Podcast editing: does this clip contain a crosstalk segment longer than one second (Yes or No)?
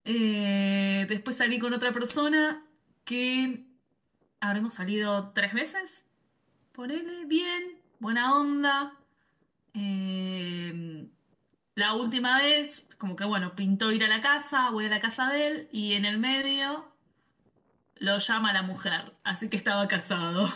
No